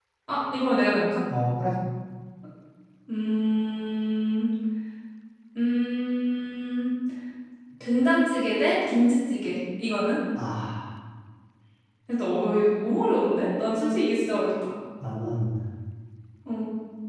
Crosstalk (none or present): none